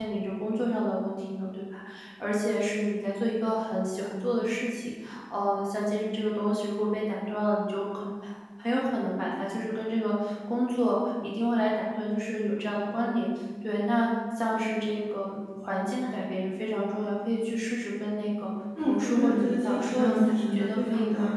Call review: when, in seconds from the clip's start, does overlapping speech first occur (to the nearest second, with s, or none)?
19 s